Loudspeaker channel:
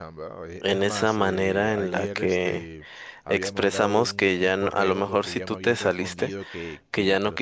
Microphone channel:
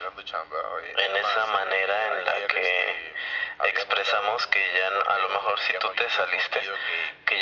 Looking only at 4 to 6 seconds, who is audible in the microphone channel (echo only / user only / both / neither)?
echo only